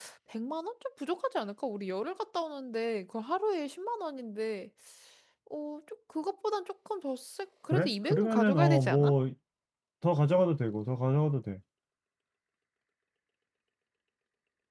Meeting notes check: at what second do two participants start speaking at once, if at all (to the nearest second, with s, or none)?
8 s